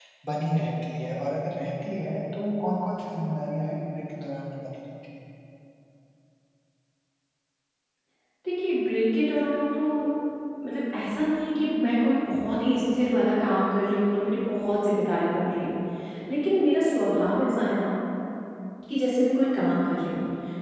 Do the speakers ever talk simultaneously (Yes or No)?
No